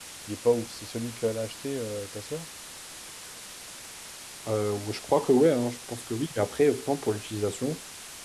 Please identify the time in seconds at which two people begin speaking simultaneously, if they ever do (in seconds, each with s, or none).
none